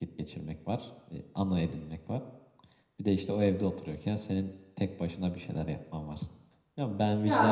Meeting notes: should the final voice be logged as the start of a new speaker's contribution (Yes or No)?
No